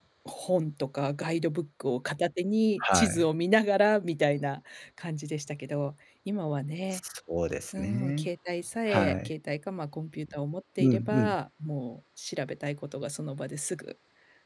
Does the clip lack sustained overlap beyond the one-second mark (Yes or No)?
Yes